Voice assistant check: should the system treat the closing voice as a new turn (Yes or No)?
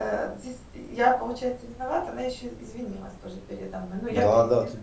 Yes